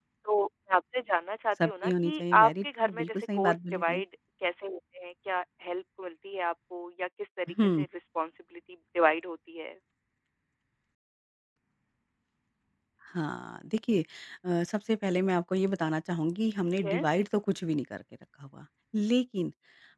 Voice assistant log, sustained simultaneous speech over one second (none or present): present